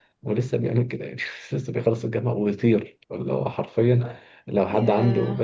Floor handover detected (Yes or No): No